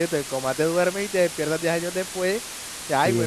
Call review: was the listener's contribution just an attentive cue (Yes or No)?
No